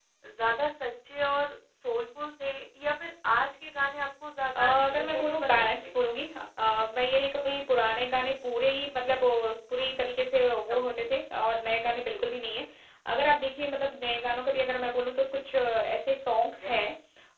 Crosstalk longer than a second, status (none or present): present